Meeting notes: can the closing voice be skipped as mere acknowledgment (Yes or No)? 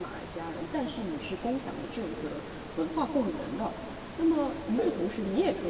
Yes